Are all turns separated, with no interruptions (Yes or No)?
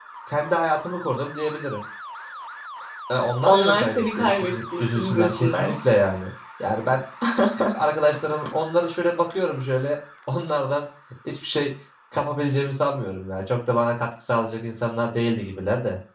No